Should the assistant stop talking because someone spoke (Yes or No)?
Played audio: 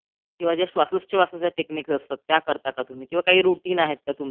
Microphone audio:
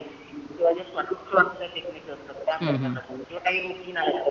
Yes